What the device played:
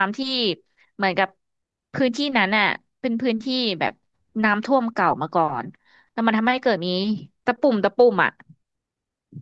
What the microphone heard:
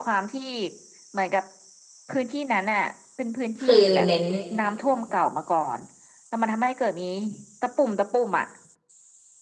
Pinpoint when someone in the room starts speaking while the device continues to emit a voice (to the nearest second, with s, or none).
4 s